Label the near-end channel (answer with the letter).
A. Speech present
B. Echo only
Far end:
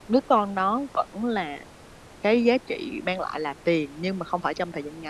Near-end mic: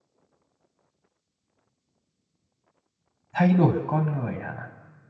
A